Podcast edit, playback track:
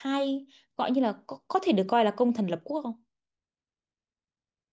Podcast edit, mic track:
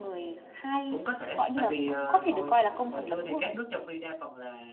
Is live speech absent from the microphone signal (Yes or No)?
No